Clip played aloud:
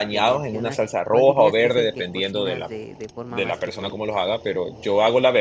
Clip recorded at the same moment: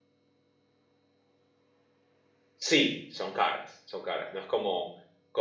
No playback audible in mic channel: Yes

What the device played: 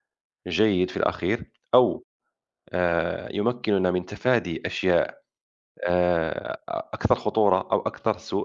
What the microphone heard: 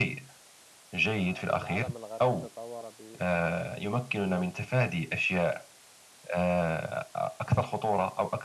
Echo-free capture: No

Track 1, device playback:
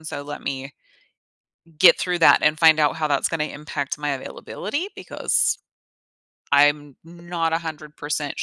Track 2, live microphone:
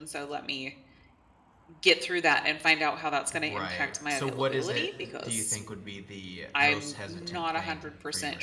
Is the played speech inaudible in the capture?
No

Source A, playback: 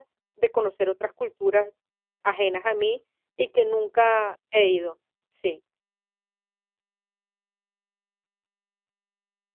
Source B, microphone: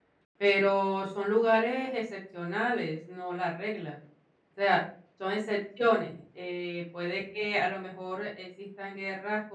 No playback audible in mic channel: Yes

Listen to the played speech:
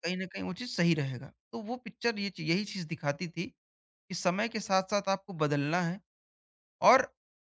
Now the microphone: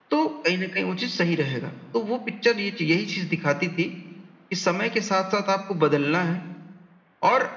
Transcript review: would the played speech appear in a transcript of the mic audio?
Yes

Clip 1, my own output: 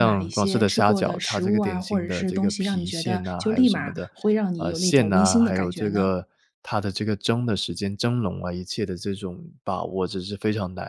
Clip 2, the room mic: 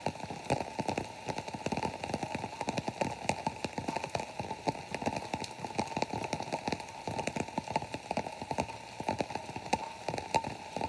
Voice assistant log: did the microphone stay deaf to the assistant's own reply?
Yes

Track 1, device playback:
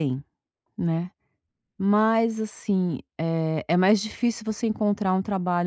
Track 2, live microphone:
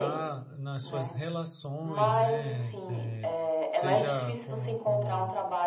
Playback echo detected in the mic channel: Yes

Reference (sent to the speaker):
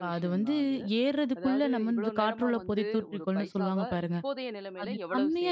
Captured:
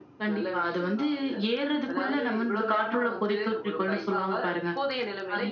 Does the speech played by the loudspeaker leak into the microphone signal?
Yes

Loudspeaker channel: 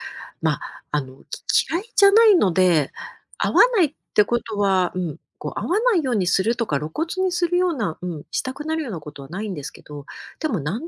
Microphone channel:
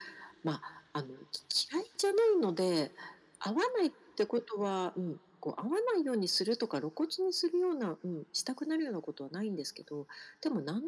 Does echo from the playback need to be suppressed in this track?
Yes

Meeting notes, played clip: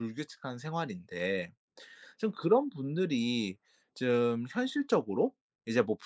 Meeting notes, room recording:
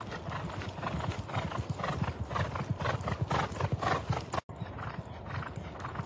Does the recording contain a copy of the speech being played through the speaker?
No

